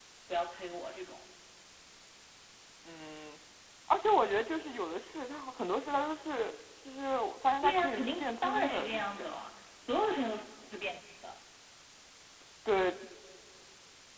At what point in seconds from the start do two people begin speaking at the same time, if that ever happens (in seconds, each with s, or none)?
7.6 s